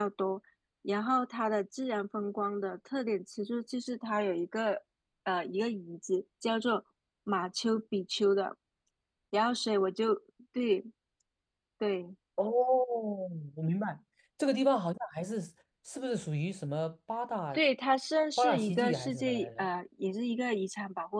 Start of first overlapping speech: 18.4 s

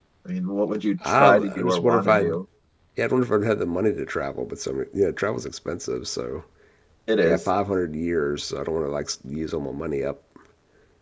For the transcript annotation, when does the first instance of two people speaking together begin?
1.1 s

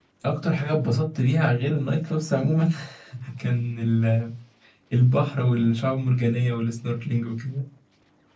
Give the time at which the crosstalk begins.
none

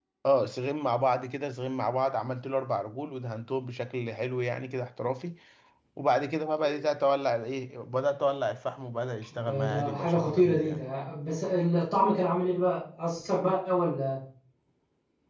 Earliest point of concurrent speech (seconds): 9.3 s

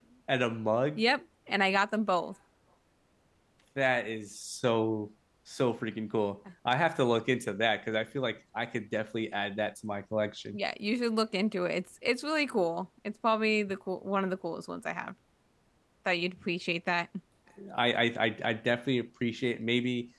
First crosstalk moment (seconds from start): none

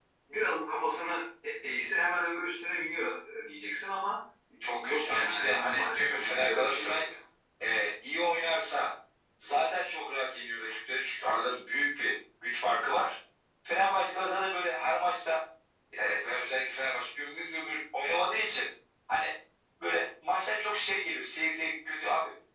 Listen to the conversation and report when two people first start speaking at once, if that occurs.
4.7 s

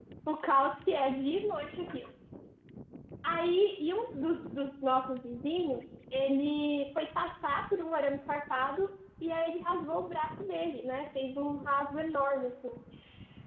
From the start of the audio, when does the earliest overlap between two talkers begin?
none

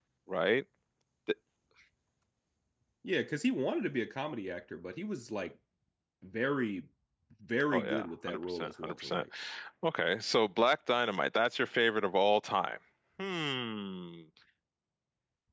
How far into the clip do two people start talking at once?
7.7 s

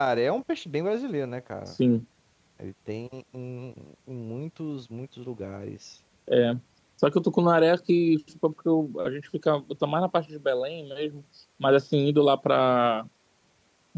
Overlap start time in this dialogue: none

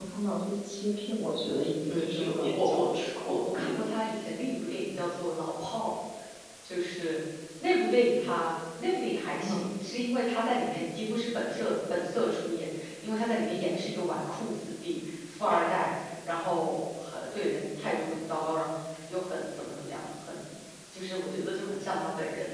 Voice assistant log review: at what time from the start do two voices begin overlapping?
1.5 s

